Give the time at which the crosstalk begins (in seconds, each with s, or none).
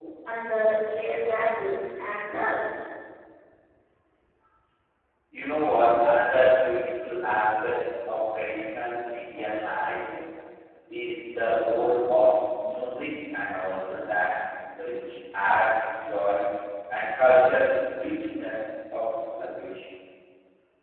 none